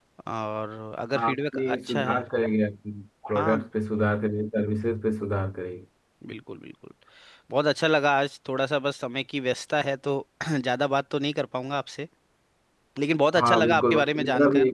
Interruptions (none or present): present